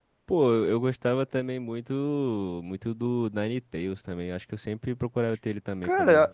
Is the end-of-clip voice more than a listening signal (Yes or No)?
Yes